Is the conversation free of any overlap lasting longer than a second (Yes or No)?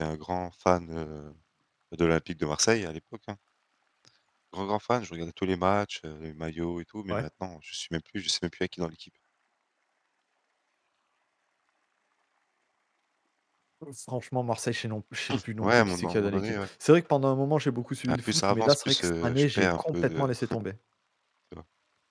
No